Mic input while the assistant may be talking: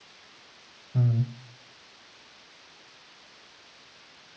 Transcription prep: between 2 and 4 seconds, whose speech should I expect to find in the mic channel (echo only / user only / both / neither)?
neither